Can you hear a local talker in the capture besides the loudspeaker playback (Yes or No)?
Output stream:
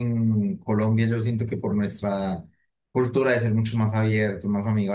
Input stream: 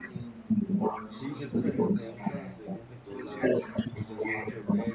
Yes